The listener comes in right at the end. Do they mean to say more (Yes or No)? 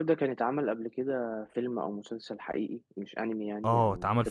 Yes